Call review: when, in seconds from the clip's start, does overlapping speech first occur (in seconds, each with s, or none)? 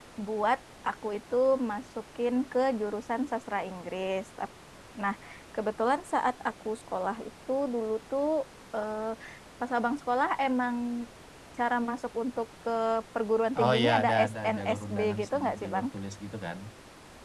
13.6 s